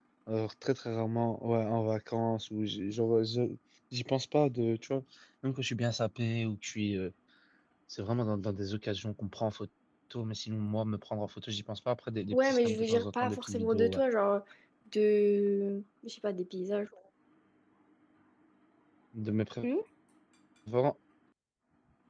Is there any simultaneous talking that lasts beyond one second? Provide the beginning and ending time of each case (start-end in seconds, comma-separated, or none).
12.3-14.0